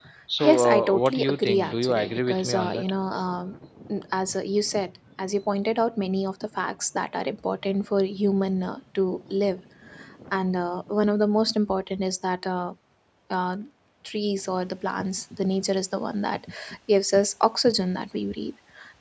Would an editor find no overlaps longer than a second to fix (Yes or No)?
No